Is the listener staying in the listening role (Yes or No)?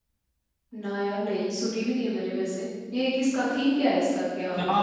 No